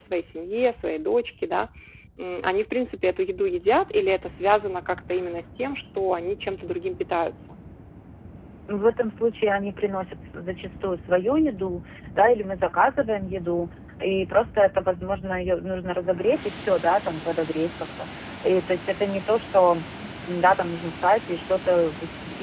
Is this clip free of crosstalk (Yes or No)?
Yes